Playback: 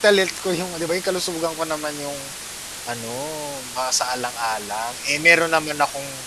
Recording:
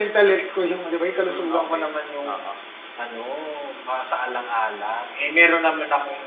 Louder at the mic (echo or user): echo